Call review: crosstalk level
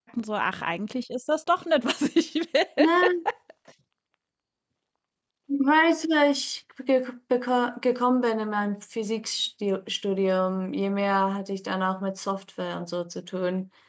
none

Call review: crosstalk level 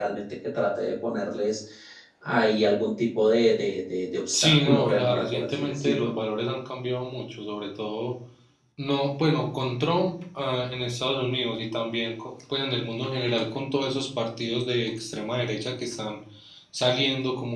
present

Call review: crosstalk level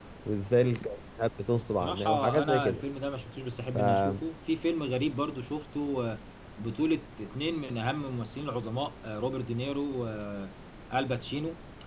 present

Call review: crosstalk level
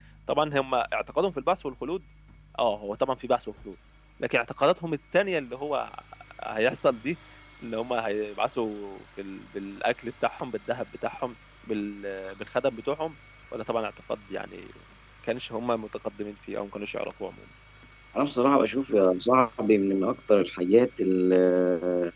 none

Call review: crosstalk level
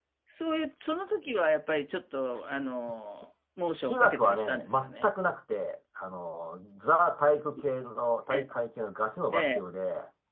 present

